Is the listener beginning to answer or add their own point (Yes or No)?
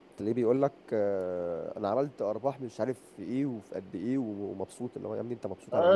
Yes